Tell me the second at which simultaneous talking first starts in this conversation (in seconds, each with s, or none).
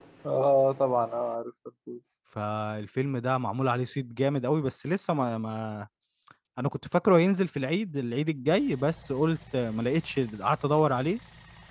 none